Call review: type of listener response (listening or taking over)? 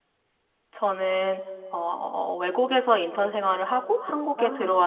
listening